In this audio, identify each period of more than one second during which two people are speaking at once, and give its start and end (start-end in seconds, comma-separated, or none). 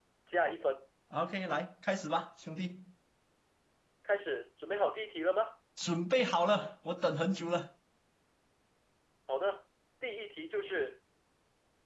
none